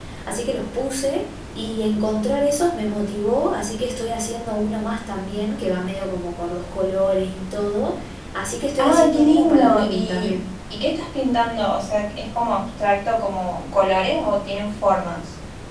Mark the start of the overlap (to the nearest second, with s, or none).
9 s